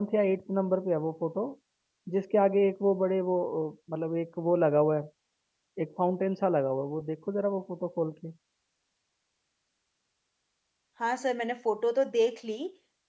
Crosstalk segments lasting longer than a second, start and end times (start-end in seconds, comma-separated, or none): none